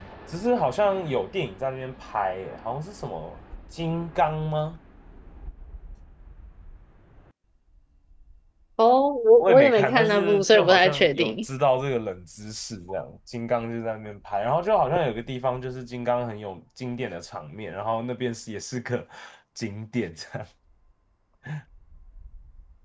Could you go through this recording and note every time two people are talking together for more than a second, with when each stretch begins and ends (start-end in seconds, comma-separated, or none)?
9.4-11.4